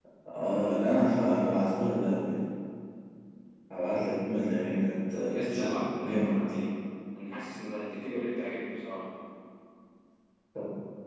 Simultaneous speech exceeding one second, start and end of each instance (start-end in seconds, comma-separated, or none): 5.1-6.4